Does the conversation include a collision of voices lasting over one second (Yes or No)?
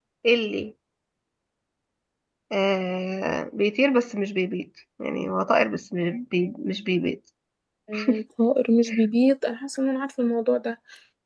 No